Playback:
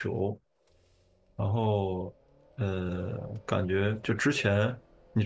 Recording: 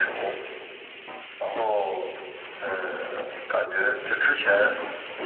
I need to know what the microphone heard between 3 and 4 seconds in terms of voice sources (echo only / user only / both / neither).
echo only